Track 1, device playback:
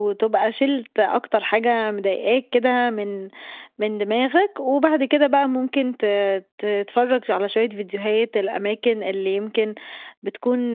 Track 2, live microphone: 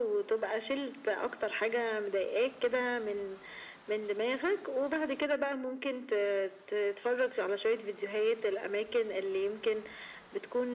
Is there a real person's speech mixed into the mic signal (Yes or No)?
No